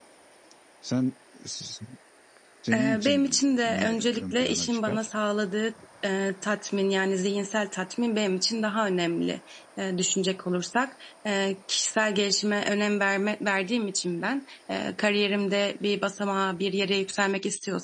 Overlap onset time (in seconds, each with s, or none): 2.7 s